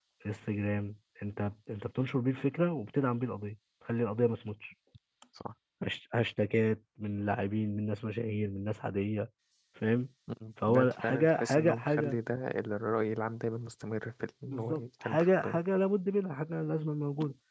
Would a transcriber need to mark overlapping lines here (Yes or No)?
Yes